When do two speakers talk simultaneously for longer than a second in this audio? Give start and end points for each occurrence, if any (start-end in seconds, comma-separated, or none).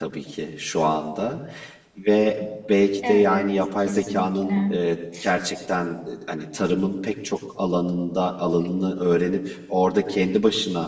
3.0-4.7